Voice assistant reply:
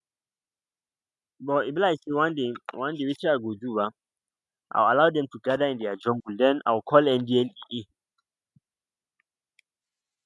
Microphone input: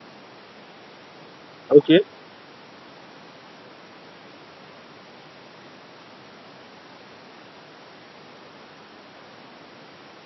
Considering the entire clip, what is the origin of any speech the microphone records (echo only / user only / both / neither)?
user only